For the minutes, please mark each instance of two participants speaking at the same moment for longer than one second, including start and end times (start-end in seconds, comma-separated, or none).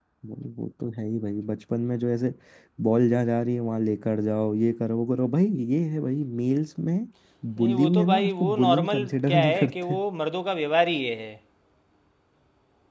7.6-10.0